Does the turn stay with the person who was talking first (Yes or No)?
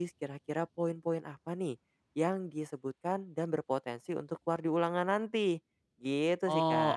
No